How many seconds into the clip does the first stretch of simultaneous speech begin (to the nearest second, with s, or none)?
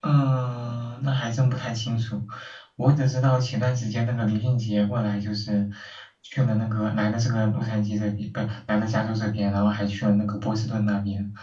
none